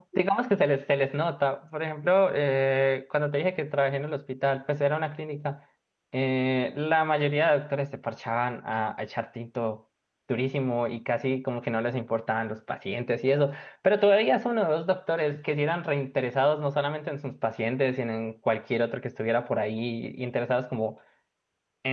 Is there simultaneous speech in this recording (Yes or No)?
No